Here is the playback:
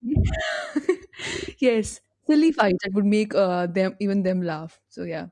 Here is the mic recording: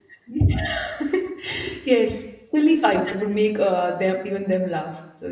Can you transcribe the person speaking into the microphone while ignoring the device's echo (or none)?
none